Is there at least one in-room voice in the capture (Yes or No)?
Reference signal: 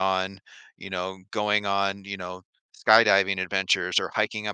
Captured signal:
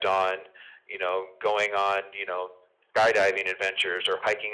No